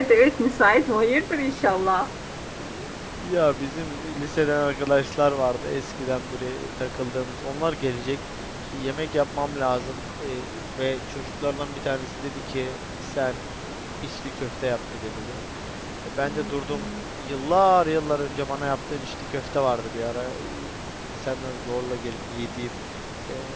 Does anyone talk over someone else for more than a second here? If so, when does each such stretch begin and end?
none

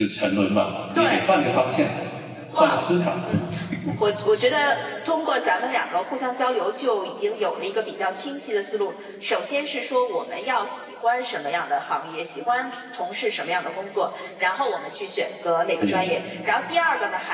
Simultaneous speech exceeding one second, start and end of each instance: none

